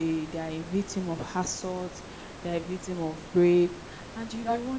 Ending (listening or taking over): listening